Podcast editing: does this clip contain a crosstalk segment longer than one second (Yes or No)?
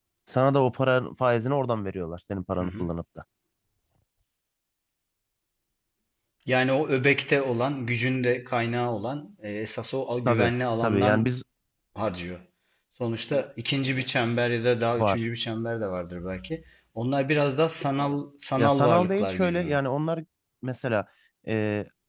Yes